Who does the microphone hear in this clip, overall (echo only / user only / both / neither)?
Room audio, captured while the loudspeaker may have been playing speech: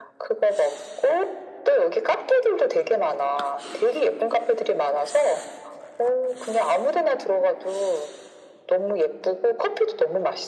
echo only